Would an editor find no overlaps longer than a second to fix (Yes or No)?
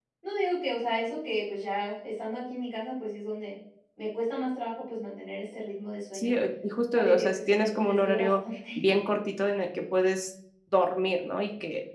No